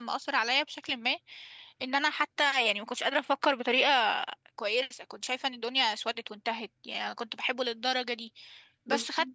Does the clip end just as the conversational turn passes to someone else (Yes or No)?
No